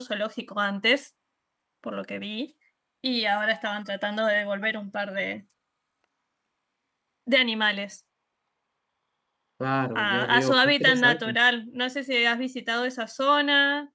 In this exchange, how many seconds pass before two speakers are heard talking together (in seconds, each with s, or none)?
9.9 s